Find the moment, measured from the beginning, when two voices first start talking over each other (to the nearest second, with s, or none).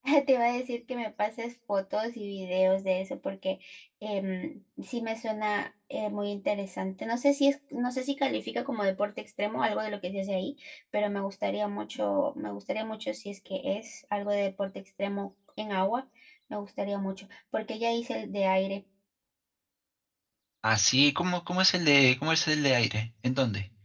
none